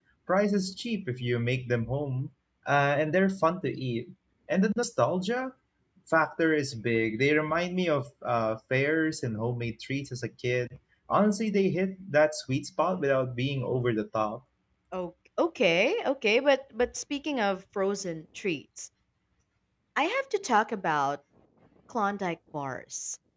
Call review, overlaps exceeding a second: none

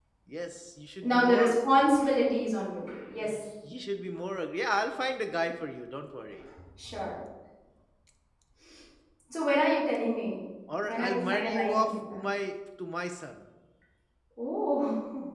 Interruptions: present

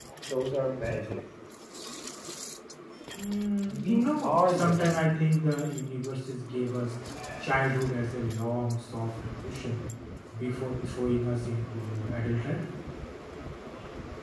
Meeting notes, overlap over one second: present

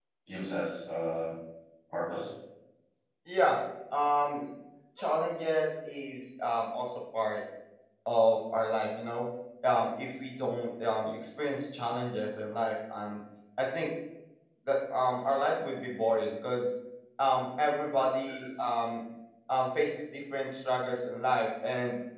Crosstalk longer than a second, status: none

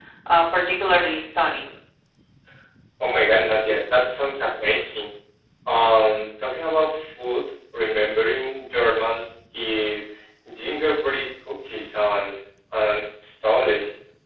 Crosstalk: none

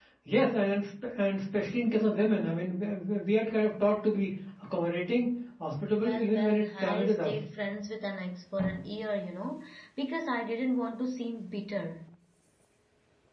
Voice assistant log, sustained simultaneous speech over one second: present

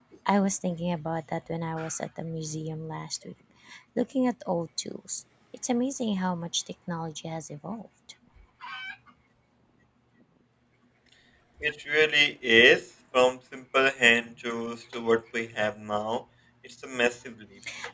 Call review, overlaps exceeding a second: none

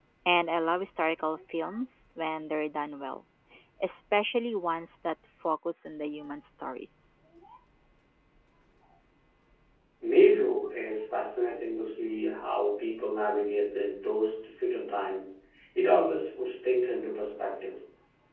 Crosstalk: none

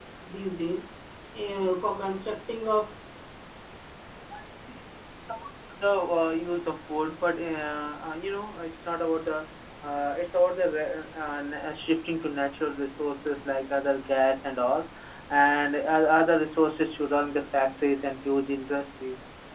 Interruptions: none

